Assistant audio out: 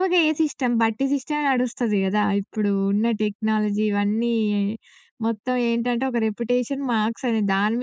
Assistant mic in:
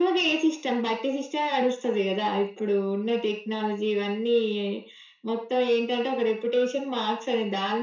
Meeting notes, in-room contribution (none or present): none